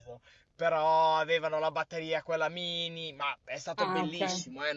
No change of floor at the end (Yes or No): Yes